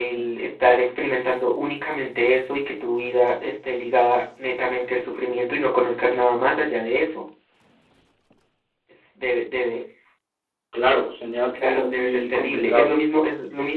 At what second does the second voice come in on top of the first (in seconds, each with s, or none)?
11.6 s